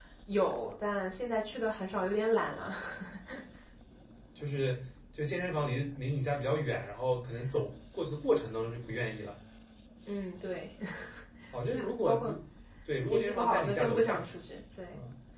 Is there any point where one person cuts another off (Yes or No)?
Yes